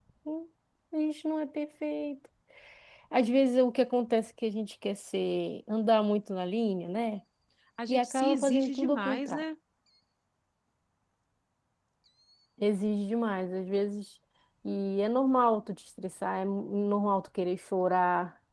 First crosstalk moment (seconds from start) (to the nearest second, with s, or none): 8 s